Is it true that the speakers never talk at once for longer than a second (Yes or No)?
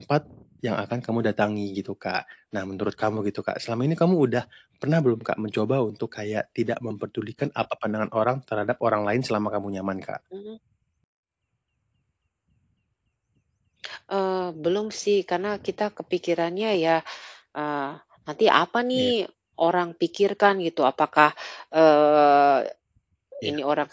Yes